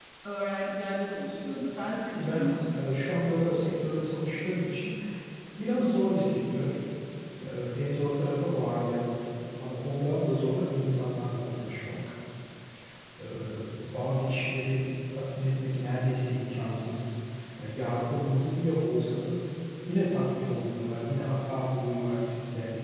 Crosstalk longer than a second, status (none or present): none